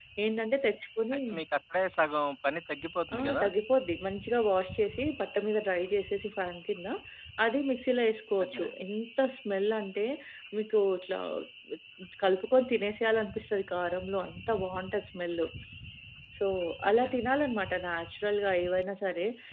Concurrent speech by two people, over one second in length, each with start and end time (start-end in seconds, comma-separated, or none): none